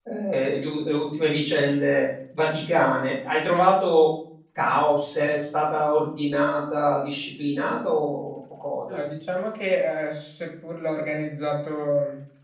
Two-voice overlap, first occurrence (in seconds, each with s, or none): none